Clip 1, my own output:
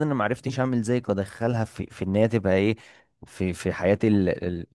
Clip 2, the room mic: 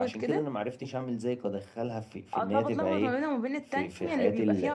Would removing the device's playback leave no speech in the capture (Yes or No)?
No